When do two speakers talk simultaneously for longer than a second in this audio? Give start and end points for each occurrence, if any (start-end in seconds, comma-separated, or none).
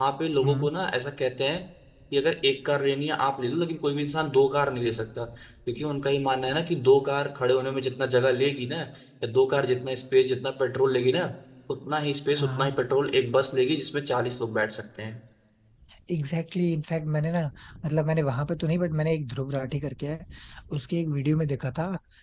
none